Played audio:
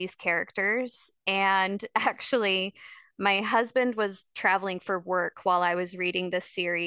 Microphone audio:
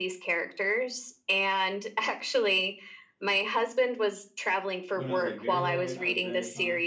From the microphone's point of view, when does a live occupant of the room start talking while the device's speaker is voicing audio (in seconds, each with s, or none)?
4.9 s